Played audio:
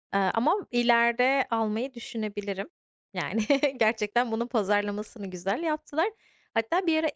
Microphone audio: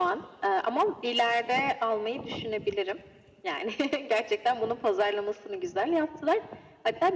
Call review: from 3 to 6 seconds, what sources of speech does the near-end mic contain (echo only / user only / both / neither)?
echo only